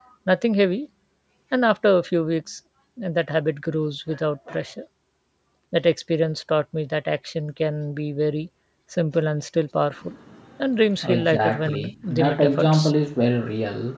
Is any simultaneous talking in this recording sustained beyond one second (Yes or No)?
Yes